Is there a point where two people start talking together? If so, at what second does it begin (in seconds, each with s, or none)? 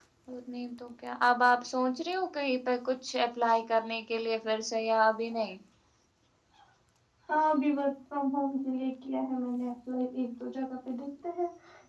none